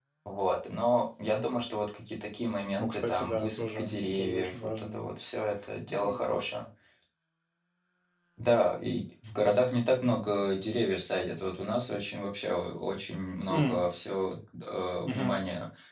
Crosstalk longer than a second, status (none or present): present